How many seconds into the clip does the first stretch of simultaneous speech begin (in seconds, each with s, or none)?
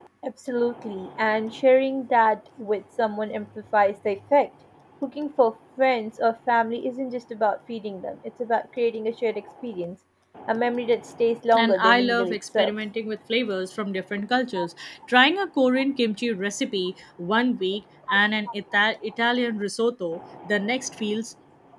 11.5 s